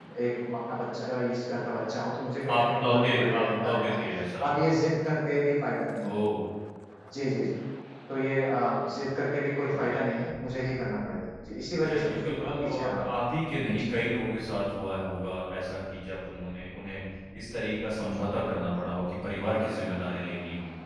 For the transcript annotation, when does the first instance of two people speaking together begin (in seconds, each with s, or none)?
2.5 s